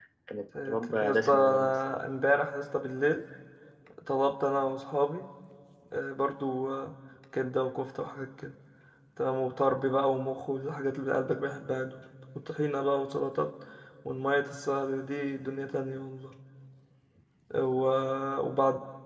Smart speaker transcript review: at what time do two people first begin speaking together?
0.7 s

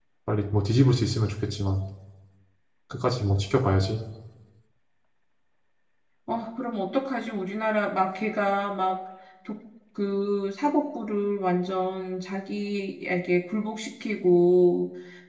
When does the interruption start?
none

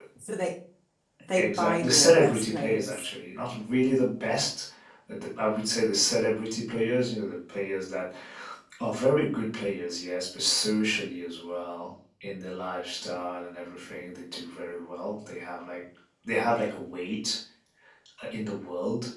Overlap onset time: 1.4 s

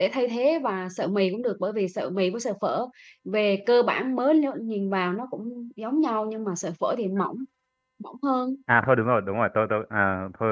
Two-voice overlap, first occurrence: none

